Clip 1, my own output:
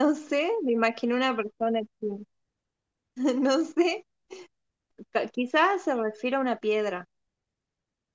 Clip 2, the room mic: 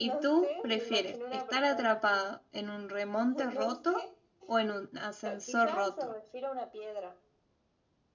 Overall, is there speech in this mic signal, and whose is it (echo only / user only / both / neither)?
both